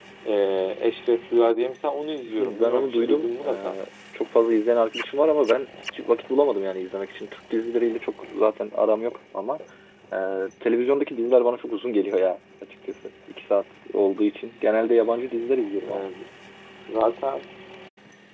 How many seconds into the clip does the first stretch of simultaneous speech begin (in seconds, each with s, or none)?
2.2 s